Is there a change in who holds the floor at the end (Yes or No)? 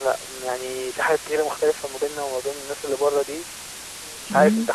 Yes